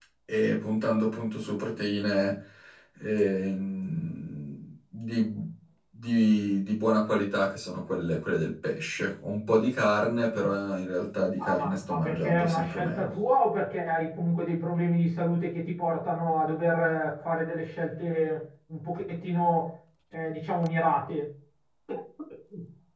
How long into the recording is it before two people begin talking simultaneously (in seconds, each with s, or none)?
11.4 s